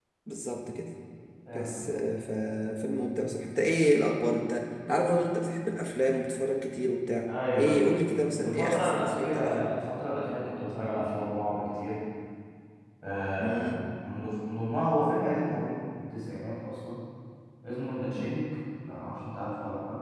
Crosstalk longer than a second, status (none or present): present